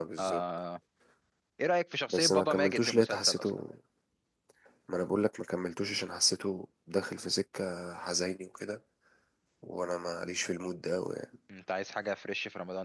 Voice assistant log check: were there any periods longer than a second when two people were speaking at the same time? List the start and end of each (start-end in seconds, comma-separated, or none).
2.1-3.5